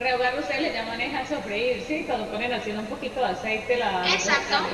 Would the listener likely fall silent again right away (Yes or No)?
No